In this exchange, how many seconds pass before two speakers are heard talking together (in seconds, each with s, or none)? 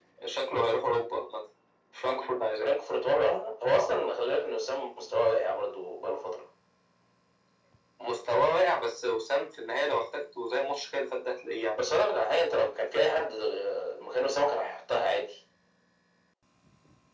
none